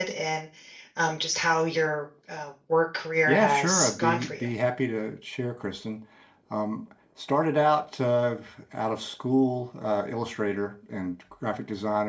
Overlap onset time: 3.3 s

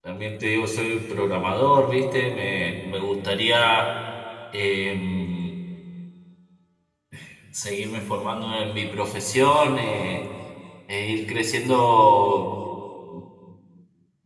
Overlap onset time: none

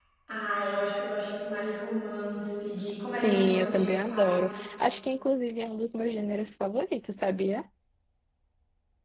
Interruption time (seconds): 3.2 s

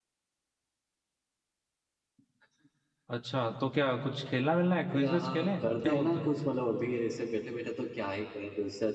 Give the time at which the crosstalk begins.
4.9 s

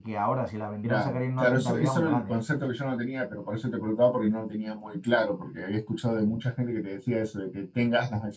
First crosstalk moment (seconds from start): 0.8 s

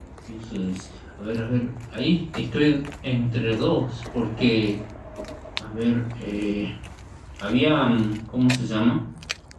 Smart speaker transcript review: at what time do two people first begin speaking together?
none

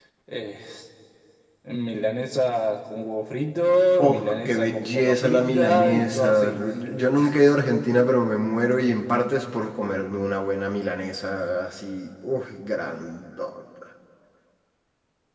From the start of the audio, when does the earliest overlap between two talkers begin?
4.0 s

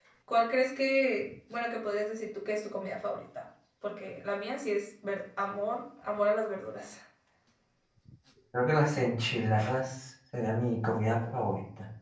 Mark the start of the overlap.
none

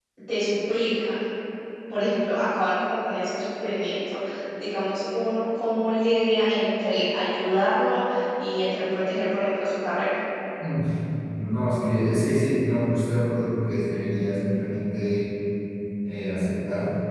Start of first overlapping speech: none

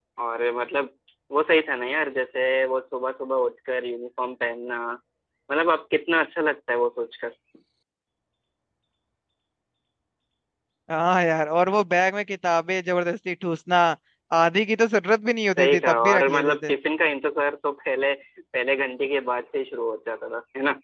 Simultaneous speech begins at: 15.5 s

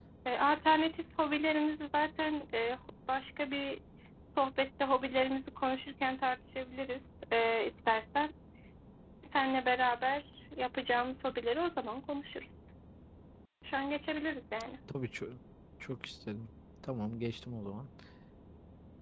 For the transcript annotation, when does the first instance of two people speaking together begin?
none

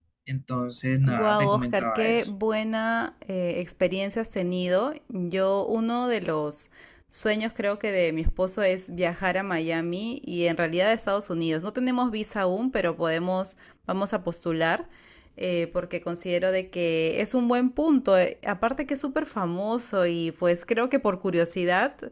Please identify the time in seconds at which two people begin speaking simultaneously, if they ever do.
1.1 s

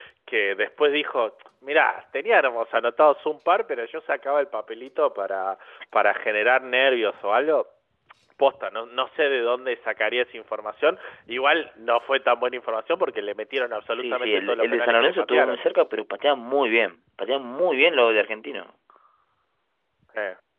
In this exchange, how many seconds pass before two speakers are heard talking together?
13.9 s

